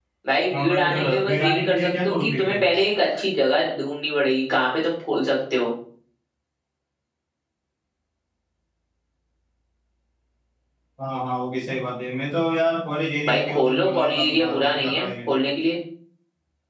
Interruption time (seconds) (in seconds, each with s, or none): 0.5 s